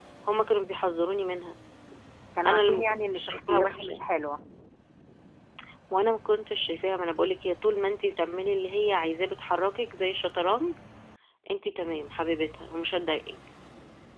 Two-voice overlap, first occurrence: 2.5 s

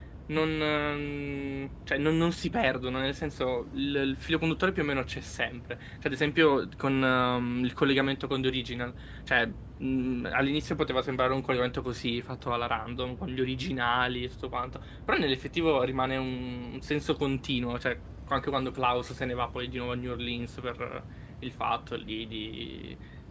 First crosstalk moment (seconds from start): none

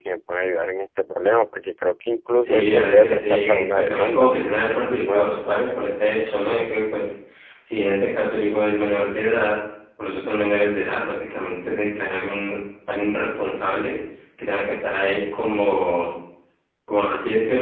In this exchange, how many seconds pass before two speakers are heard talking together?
2.5 s

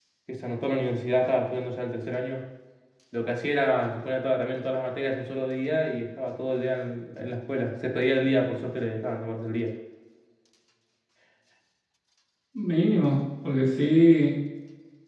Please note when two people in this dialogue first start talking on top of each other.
none

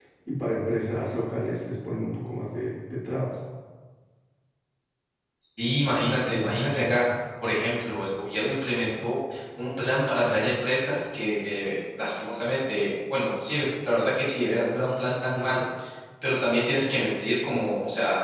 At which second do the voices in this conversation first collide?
none

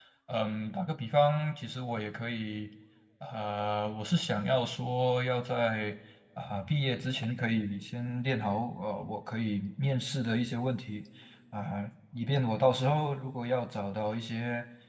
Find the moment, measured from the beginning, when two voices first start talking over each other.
none

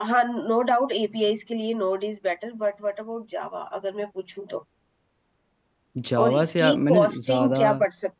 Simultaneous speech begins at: 6.2 s

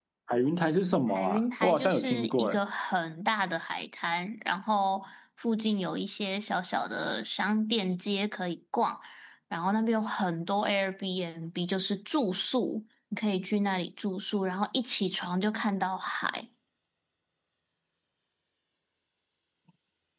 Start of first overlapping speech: 1.1 s

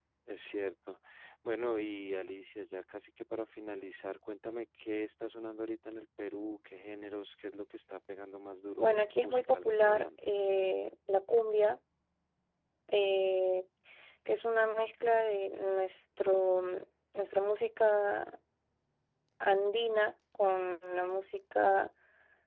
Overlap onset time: 8.8 s

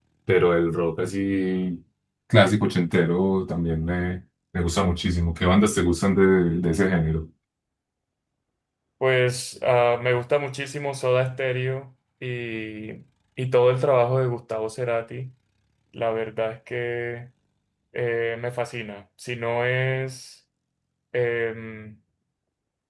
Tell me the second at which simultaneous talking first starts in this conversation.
none

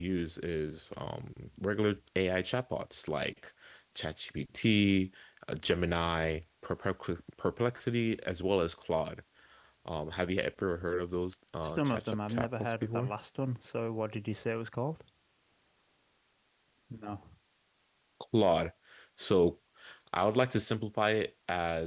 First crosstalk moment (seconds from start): 11.6 s

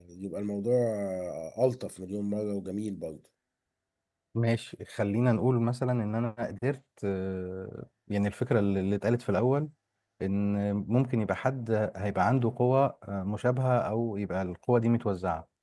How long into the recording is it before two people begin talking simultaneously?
none

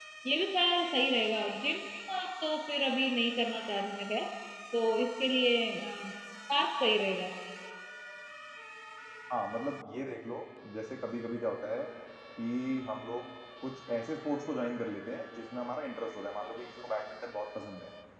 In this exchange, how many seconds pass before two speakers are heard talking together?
none

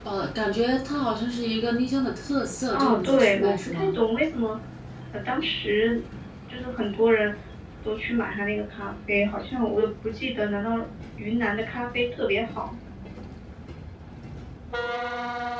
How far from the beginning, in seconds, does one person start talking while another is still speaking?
2.7 s

